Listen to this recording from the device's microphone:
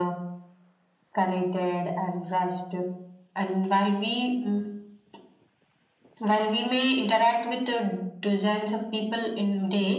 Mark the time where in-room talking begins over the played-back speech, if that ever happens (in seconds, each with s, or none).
none